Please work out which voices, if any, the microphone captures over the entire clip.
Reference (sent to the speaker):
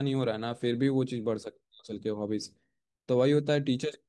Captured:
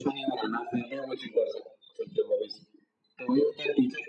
echo only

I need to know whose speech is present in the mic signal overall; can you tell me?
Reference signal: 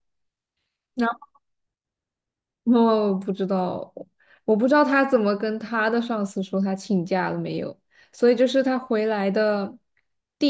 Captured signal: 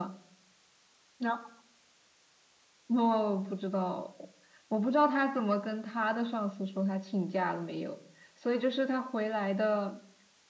echo only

